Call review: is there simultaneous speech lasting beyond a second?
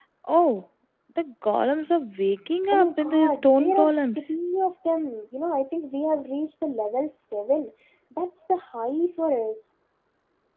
Yes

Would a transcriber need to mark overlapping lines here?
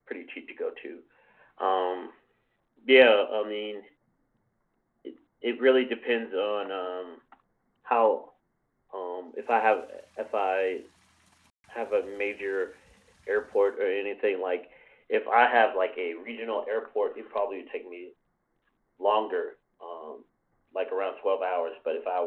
No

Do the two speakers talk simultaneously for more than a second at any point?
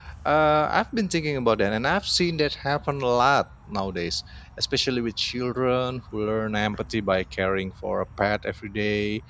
No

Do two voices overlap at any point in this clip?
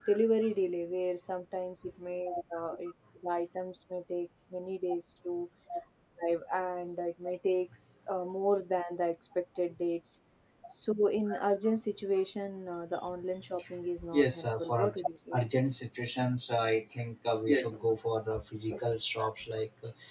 Yes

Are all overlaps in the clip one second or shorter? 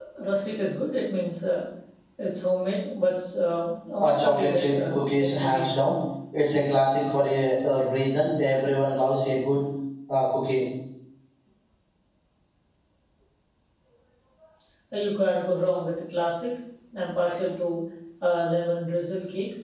No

